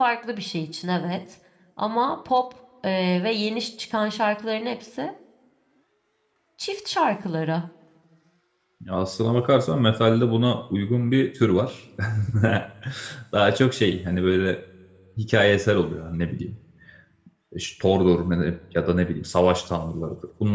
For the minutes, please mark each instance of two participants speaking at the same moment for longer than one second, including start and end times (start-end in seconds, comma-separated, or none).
none